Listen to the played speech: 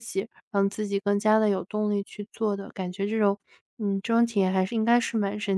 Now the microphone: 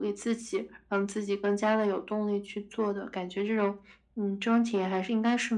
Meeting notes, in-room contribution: none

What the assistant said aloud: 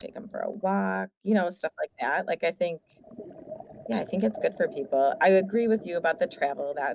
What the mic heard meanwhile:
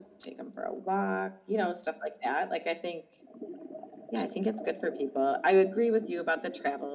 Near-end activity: none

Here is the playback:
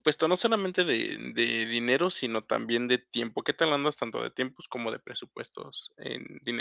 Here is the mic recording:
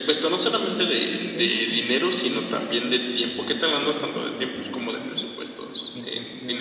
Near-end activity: present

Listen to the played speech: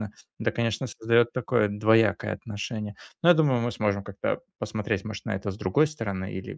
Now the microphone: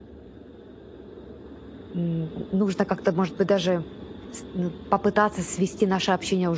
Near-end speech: present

